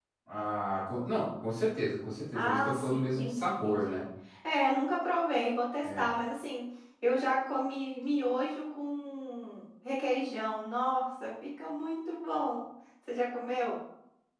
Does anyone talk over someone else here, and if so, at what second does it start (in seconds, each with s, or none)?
2.3 s